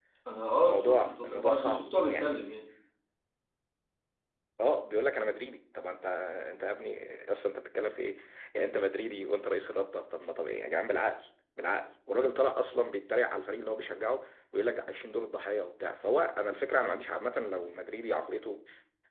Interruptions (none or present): present